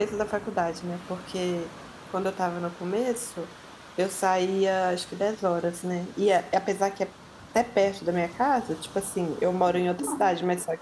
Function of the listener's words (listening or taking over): listening